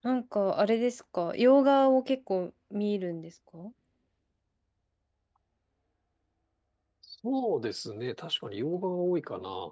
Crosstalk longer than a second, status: none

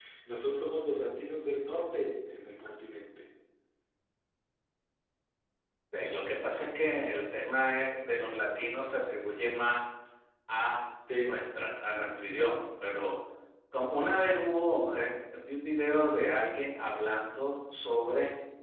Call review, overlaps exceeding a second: none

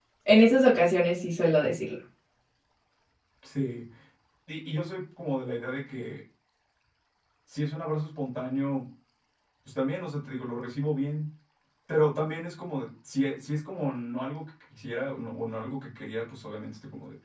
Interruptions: none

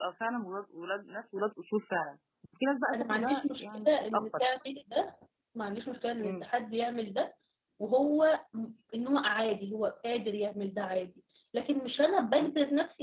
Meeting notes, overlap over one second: present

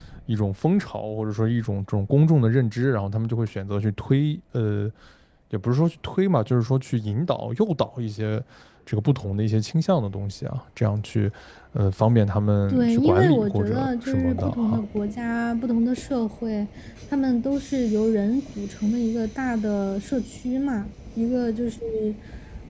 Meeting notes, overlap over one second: present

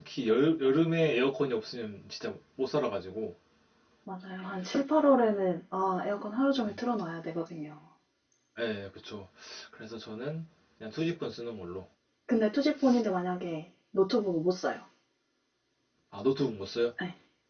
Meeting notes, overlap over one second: none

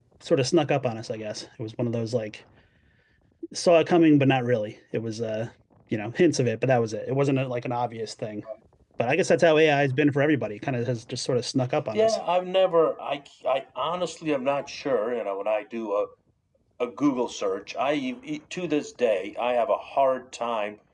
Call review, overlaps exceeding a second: none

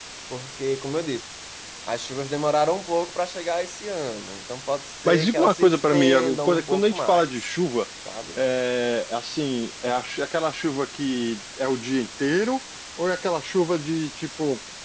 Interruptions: present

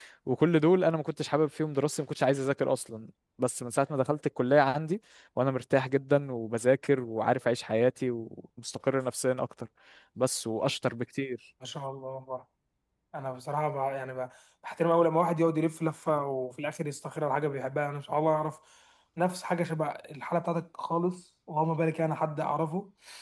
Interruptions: none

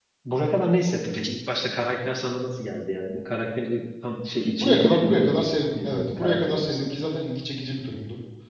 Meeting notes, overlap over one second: present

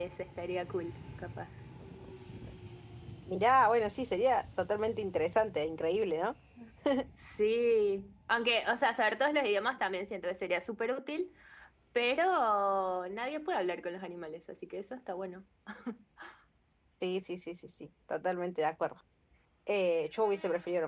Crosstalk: none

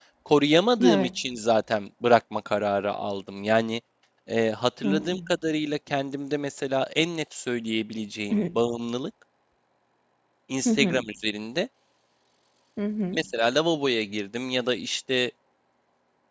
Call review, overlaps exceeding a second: none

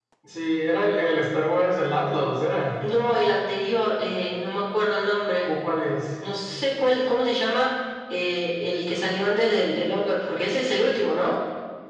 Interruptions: none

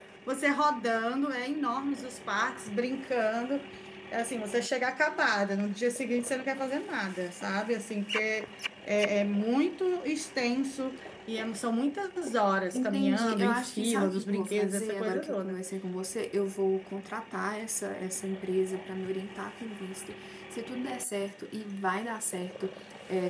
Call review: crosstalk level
present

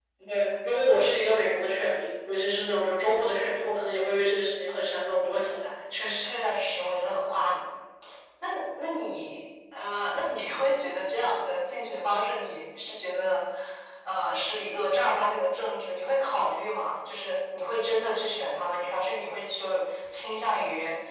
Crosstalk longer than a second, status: none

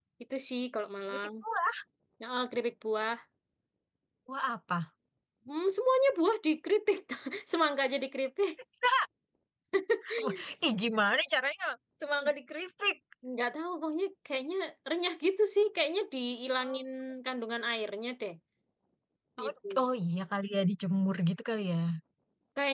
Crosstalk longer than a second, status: none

